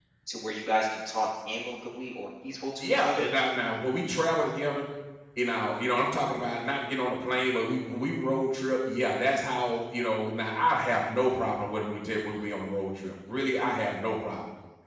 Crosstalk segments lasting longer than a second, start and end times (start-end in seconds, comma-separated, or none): none